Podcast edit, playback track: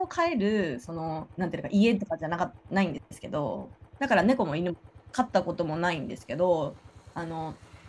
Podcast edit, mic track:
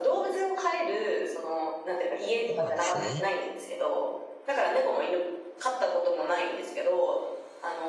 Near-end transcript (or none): そうなんですね。